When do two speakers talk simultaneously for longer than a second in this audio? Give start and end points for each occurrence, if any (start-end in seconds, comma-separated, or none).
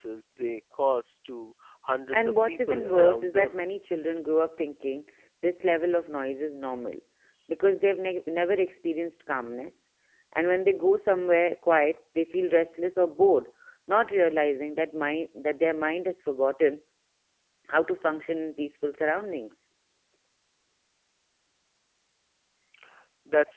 2.1-3.5